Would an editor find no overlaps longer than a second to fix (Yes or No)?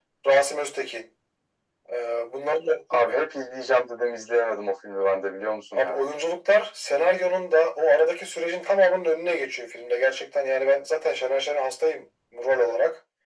Yes